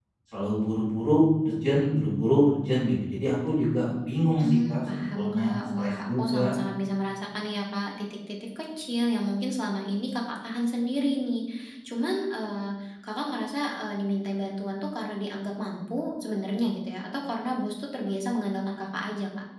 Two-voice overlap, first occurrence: 4.4 s

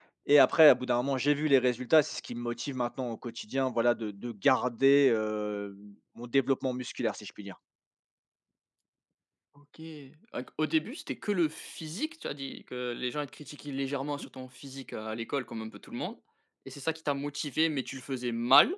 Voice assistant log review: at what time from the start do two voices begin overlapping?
none

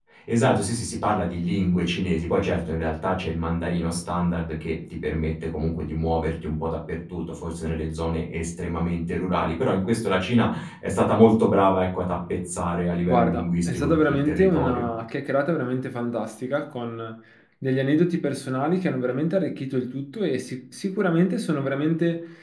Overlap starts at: 13.1 s

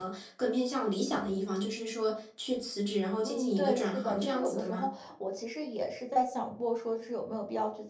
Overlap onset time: 3.2 s

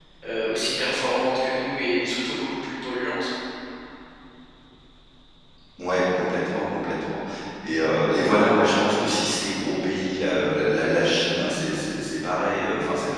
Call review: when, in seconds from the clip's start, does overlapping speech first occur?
none

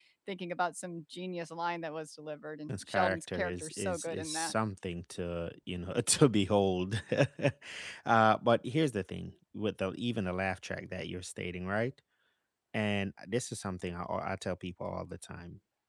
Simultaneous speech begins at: 2.7 s

